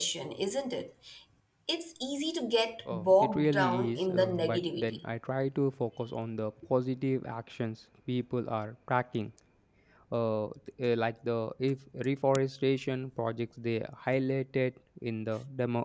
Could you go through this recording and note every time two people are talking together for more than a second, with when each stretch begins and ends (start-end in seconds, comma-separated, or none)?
2.9-5.0